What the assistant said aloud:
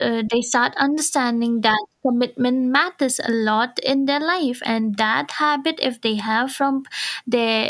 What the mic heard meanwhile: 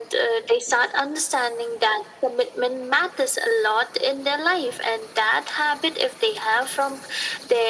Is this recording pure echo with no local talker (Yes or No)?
Yes